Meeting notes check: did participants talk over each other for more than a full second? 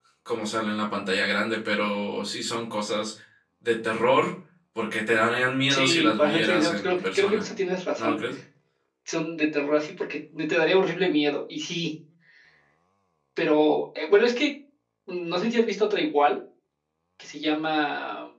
Yes, from 5.7 s

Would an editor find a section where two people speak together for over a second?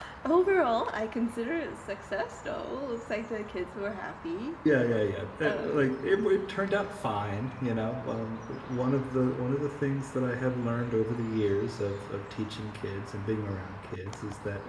No

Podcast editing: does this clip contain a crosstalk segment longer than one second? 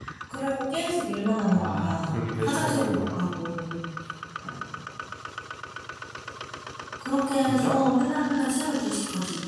Yes, from 1.6 s

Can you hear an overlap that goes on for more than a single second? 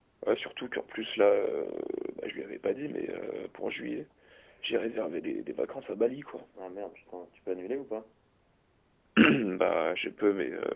No

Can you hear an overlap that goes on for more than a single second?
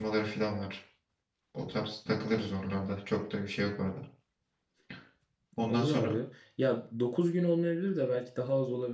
No

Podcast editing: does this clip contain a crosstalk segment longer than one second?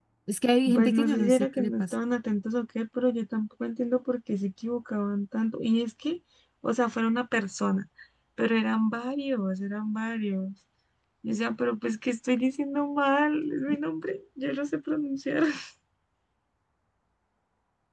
Yes, from 0.7 s

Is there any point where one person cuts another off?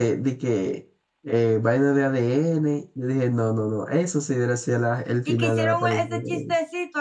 Yes, from 5.3 s

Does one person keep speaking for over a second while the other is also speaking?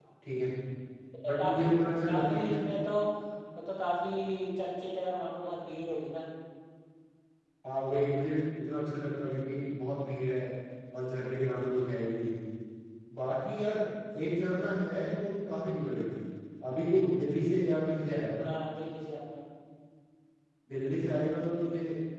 No

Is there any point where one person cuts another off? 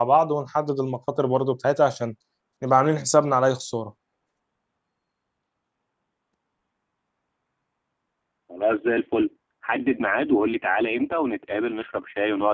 No

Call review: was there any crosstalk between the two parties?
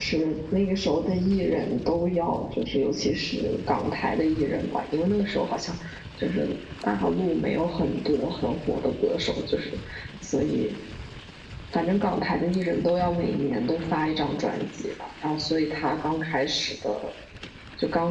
No

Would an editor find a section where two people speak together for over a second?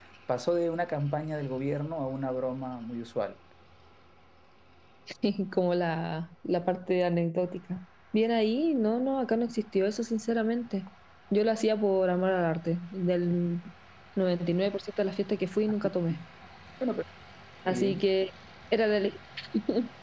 No

